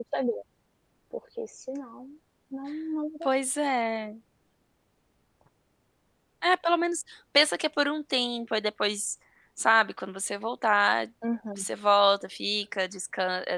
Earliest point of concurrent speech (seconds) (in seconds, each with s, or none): none